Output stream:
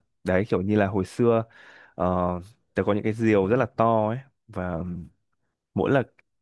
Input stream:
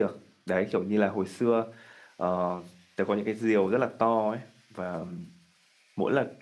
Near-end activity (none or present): none